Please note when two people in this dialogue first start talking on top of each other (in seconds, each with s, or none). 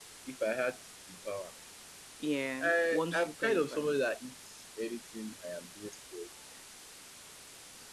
2.6 s